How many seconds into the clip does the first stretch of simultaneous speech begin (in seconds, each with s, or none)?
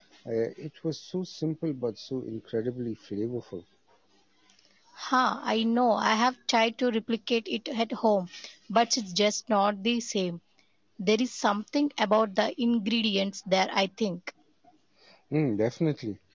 none